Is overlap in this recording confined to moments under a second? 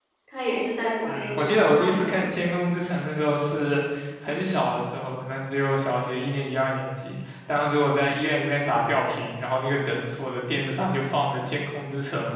No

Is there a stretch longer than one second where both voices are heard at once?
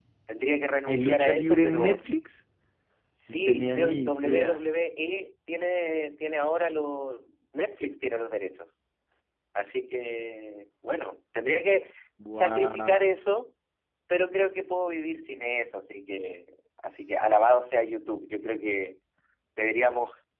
Yes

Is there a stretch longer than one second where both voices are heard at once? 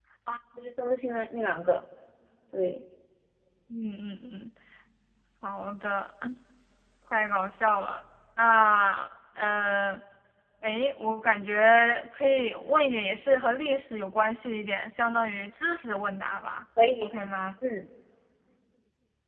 No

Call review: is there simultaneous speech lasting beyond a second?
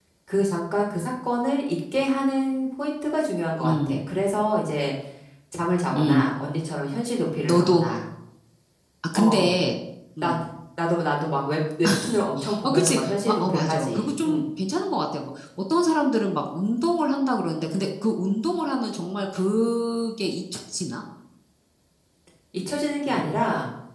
Yes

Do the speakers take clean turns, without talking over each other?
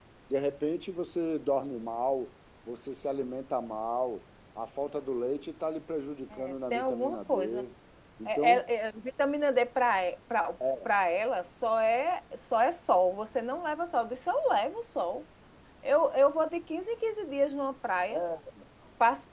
No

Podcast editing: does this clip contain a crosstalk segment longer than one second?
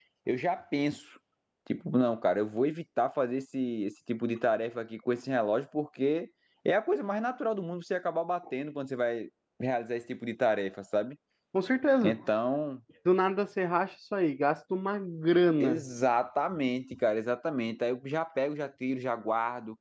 No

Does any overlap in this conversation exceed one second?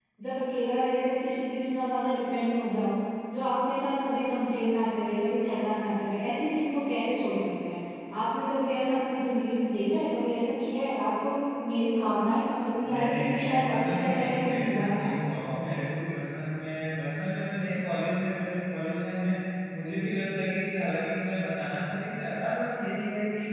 Yes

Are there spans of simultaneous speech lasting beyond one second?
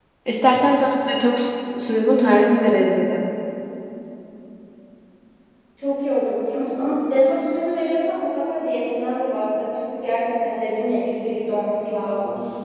No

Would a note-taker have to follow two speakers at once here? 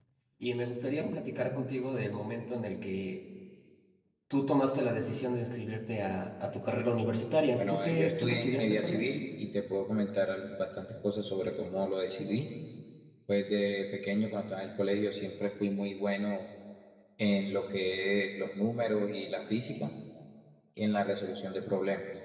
Yes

